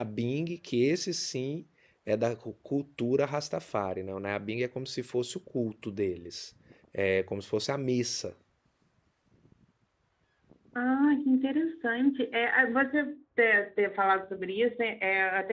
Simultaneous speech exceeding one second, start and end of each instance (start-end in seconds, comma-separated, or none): none